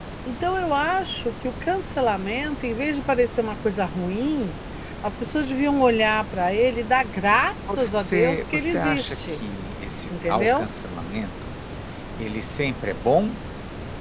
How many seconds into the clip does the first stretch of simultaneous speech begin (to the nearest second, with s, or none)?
8 s